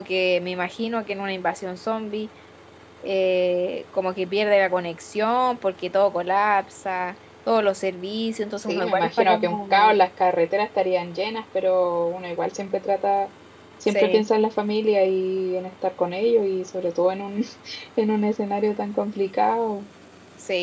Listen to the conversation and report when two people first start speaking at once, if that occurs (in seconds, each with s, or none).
8.6 s